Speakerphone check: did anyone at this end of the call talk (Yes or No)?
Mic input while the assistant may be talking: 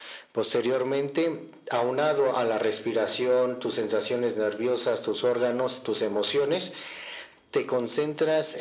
No